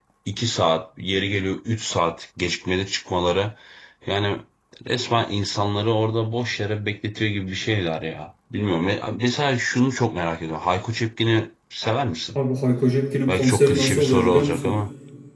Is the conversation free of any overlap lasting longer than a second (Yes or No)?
No